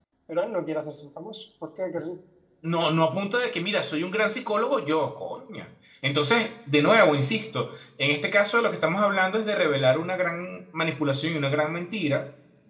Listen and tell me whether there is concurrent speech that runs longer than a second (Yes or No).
No